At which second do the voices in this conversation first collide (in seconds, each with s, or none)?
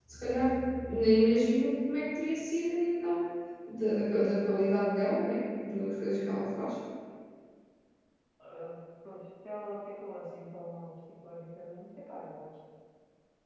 none